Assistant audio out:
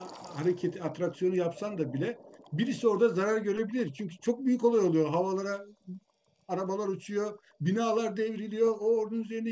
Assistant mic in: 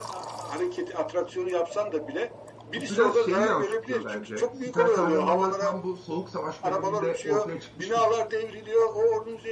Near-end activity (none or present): present